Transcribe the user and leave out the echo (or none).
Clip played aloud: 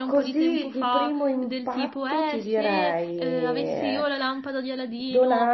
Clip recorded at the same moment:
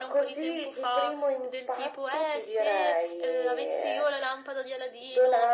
none